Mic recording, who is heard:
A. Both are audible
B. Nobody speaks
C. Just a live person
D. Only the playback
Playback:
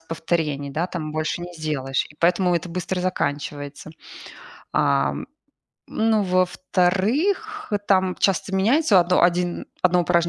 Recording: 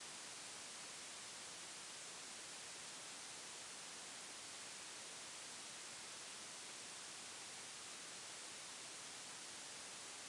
B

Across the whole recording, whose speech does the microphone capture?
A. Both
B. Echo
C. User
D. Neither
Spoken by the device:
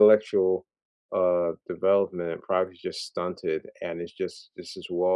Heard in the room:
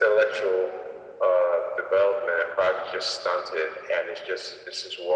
B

